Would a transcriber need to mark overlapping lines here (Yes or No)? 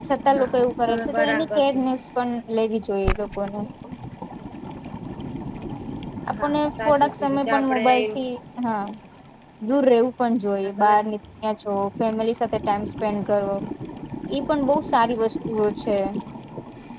Yes